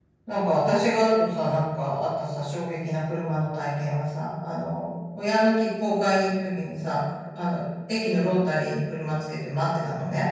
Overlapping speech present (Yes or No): No